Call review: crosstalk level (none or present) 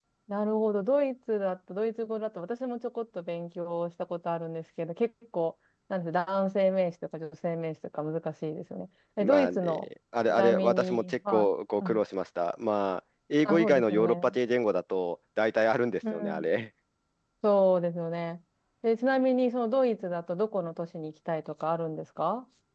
present